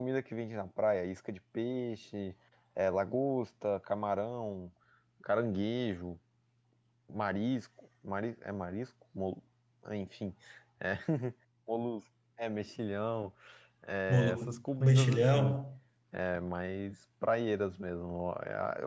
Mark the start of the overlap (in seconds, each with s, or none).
14.1 s